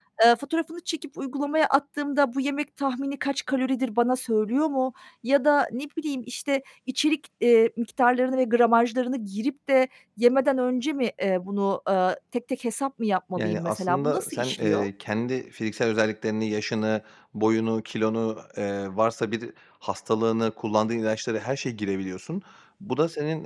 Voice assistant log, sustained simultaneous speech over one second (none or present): present